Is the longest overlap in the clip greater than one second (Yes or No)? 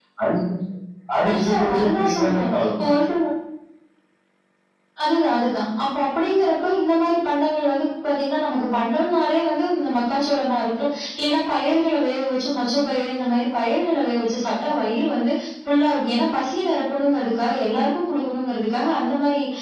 Yes